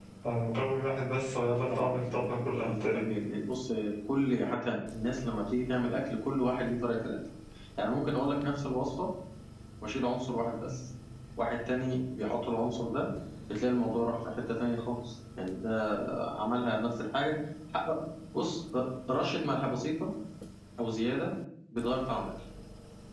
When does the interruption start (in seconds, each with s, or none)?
1.7 s